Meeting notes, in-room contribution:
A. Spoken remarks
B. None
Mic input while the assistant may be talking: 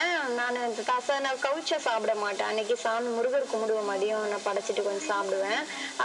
A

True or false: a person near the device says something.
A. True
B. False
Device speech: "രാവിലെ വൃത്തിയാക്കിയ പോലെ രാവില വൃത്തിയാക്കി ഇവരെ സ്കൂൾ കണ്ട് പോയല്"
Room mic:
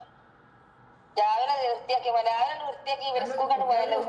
A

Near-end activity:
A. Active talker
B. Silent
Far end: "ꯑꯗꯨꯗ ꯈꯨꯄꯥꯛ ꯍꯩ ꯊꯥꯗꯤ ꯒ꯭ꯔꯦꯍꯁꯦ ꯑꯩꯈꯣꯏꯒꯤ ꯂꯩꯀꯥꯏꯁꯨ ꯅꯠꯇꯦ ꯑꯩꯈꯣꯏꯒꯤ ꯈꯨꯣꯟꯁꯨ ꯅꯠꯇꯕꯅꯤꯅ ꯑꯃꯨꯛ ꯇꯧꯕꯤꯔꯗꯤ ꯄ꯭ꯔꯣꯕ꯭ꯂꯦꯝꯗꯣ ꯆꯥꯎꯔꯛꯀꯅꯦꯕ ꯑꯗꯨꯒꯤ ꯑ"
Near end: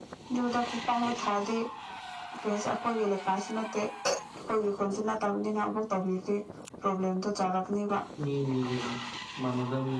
A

